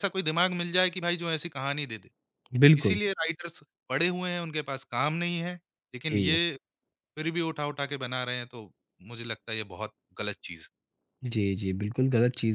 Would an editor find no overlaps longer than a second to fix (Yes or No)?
Yes